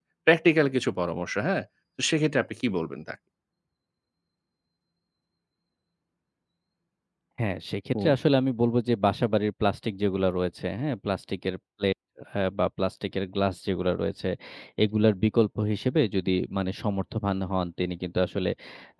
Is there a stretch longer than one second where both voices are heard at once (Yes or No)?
No